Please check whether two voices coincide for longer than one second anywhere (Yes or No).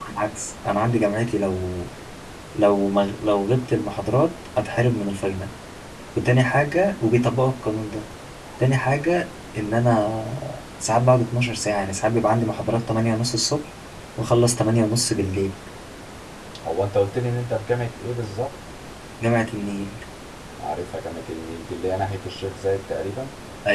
No